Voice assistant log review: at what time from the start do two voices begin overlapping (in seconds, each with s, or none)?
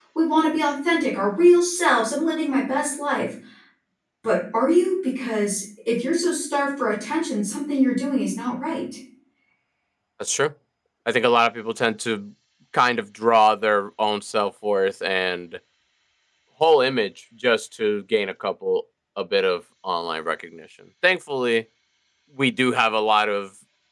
none